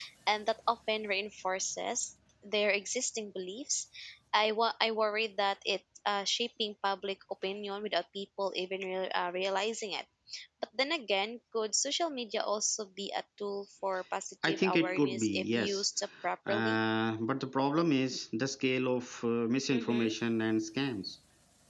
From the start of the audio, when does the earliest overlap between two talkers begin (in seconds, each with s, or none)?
14.4 s